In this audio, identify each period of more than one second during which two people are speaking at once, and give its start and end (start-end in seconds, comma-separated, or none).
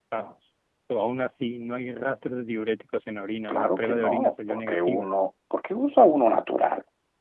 3.5-5.1